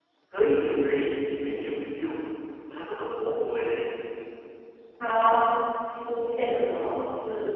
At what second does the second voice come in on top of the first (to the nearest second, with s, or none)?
none